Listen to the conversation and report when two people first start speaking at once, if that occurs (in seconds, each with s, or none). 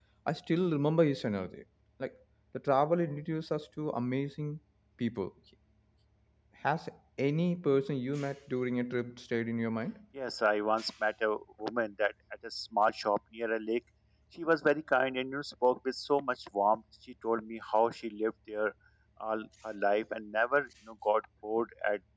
none